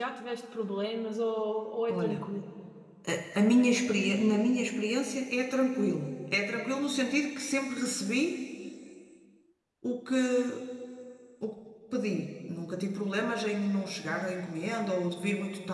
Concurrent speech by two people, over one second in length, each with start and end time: none

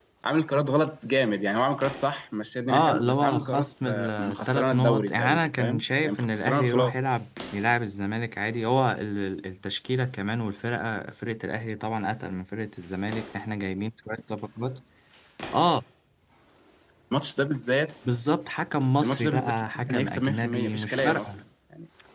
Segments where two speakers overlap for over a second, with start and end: 2.7-6.9, 19.0-21.3

